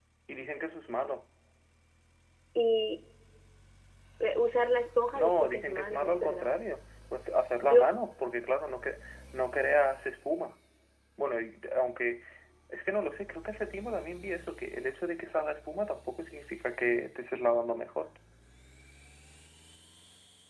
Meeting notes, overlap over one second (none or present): present